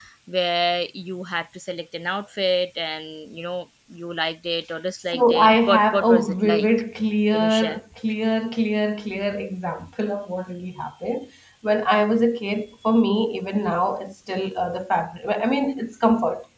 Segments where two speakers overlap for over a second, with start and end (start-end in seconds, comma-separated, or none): 5.1-6.7